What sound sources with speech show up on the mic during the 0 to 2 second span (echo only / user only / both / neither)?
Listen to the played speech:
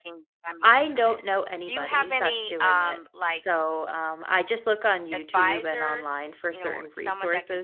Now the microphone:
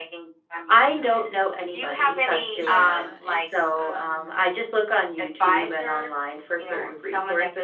echo only